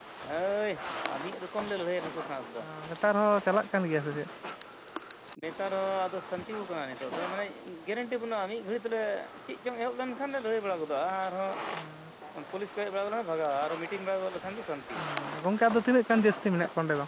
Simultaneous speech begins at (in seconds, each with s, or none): none